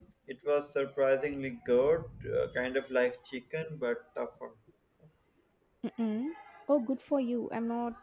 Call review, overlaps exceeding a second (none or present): none